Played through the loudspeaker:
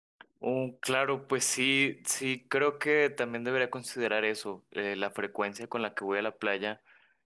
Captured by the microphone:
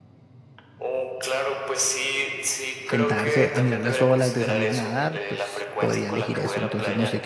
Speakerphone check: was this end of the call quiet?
No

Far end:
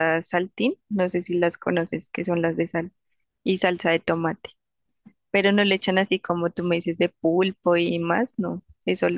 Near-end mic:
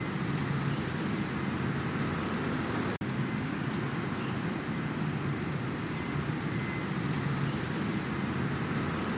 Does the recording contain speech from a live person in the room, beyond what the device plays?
No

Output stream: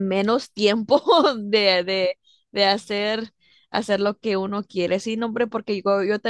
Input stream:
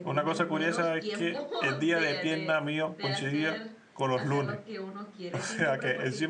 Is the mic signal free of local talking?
No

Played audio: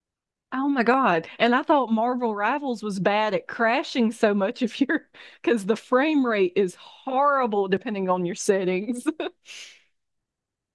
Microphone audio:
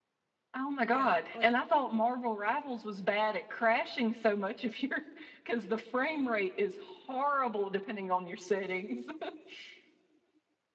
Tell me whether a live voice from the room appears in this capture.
Yes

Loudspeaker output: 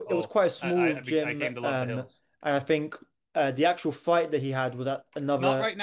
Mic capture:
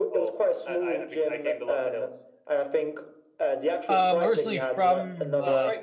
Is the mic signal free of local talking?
No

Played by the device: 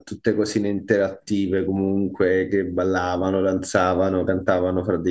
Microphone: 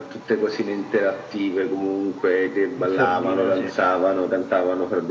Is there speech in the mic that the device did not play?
Yes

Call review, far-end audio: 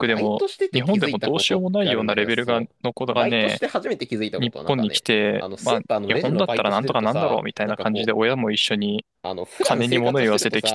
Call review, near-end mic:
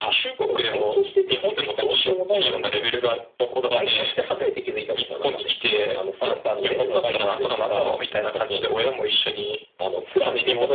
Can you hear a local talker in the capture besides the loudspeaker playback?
No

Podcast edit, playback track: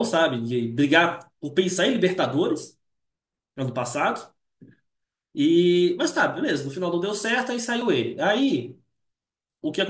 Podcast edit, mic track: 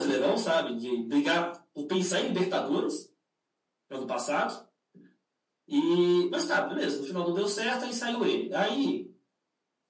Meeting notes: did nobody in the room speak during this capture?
Yes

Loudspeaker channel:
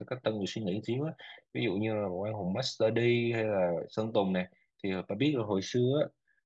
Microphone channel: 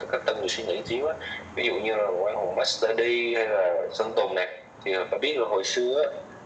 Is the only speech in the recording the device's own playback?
Yes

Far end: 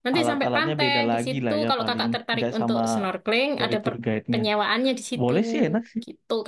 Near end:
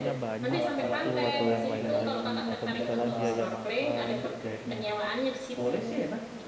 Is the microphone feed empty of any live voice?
No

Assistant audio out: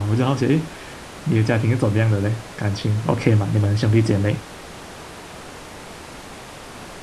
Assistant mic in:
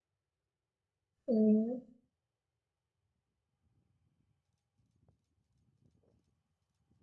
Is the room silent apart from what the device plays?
No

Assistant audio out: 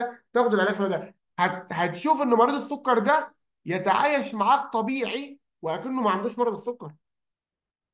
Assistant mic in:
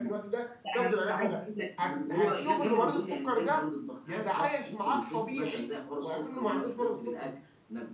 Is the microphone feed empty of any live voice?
No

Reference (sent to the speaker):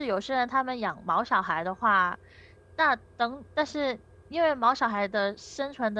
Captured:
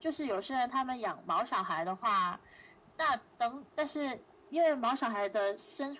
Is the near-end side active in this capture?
No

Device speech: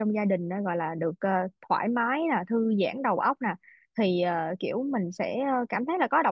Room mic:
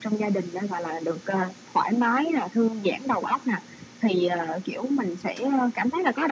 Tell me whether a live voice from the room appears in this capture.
No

